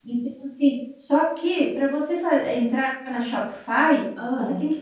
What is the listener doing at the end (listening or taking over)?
listening